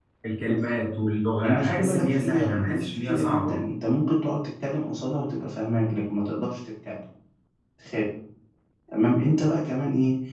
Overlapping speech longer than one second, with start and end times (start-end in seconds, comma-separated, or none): 1.4-3.6